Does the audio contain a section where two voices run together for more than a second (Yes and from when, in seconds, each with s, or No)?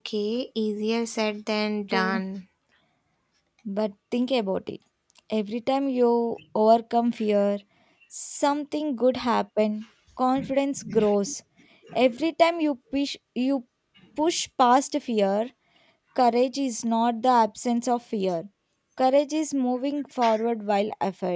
No